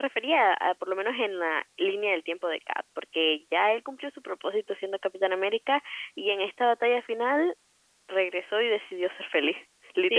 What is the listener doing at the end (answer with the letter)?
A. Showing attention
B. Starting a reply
B